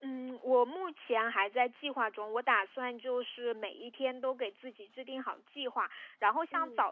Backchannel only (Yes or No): Yes